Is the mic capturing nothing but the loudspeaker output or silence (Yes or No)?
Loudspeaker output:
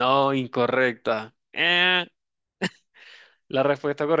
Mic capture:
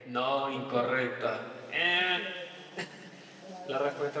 No